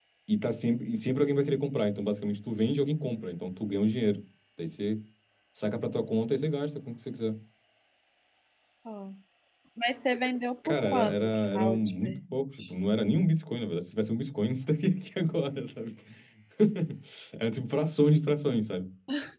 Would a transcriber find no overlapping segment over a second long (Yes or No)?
No